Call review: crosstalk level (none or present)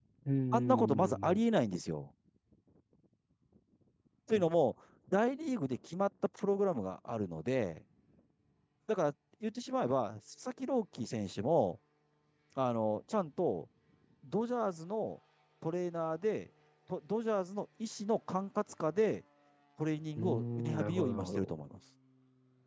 present